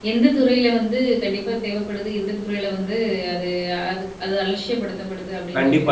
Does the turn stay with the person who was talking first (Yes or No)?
No